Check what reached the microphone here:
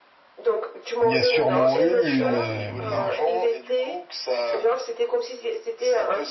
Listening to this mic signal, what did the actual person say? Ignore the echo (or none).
y a sûrement eu une, euh,